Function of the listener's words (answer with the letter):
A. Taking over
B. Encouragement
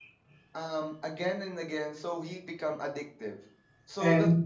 A